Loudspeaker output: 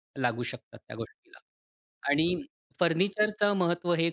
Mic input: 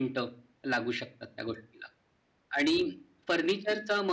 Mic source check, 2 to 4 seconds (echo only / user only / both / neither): echo only